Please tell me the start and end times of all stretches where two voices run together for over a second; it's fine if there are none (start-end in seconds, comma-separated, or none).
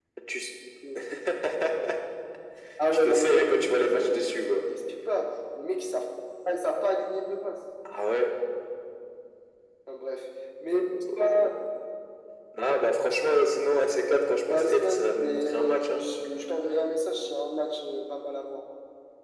2.9-4.6, 14.5-16.0